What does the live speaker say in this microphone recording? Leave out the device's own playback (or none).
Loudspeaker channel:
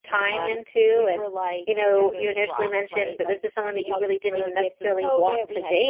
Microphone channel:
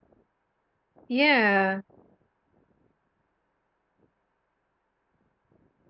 Yeah.